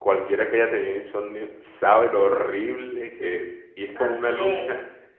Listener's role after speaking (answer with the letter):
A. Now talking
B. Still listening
B